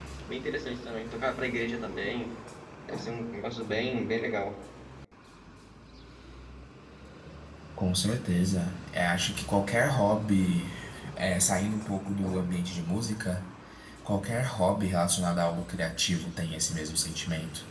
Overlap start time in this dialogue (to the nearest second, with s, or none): none